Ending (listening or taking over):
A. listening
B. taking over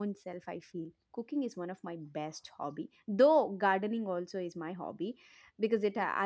A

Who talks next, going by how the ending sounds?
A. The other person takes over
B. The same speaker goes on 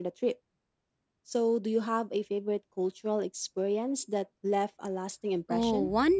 A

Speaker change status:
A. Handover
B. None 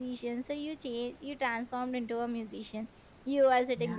B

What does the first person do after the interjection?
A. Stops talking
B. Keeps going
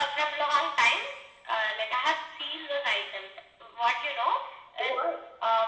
B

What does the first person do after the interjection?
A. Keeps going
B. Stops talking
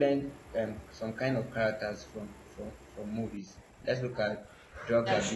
A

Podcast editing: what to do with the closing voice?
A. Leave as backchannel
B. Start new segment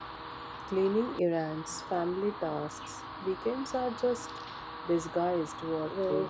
B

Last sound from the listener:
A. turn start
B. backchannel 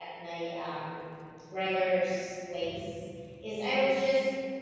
B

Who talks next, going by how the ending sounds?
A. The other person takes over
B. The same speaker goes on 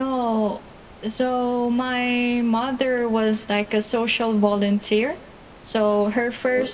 B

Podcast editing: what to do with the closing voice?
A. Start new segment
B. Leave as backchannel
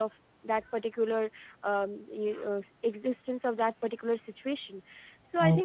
B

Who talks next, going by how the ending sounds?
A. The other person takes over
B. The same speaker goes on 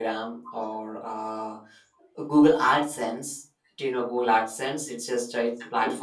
B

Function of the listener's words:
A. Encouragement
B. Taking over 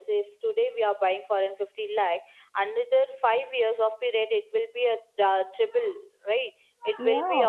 B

